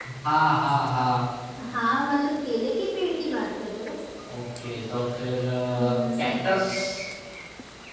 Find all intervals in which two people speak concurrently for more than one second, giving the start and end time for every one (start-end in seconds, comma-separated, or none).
none